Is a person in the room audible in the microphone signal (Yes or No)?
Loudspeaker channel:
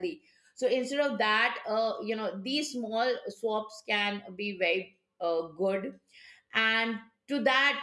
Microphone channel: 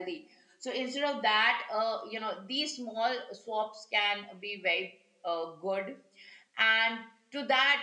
No